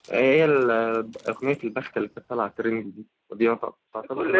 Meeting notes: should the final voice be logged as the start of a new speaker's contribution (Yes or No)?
Yes